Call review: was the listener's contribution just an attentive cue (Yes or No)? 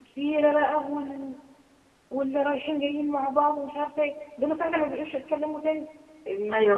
No